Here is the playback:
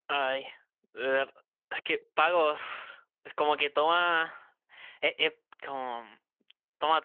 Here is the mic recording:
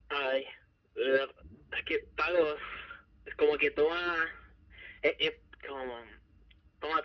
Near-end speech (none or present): none